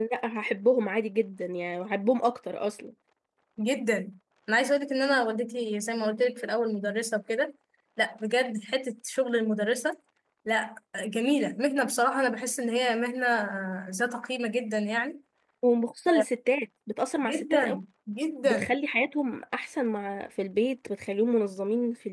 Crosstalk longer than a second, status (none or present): none